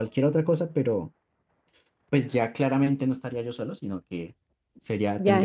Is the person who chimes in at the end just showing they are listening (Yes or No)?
No